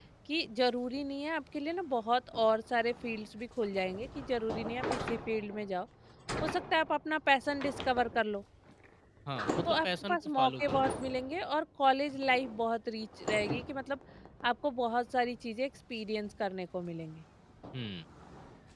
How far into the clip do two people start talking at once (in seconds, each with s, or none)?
9.6 s